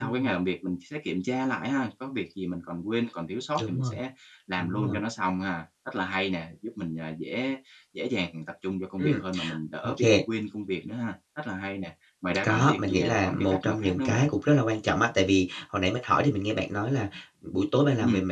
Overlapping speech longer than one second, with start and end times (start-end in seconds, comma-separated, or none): 12.4-14.3